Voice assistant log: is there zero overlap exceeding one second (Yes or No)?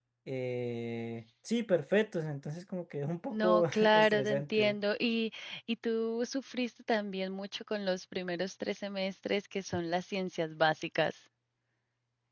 No